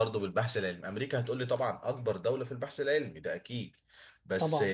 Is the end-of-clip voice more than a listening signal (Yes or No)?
No